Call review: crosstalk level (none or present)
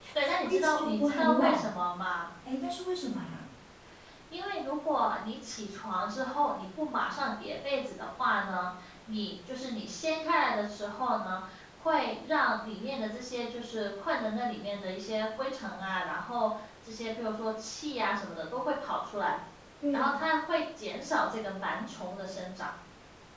present